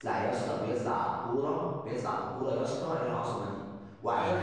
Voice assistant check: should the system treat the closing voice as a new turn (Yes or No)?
No